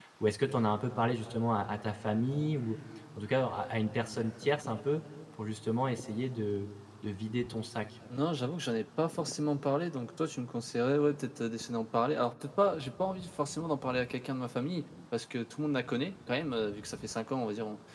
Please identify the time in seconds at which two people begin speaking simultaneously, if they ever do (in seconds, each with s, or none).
none